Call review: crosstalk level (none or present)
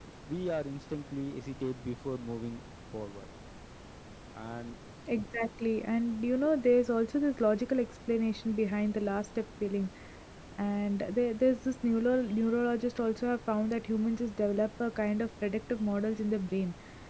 none